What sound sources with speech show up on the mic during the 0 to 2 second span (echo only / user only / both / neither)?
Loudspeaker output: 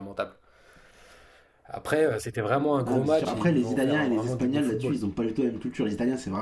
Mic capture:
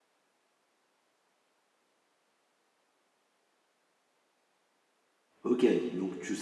neither